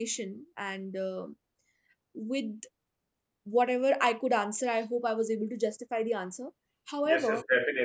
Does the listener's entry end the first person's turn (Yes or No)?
Yes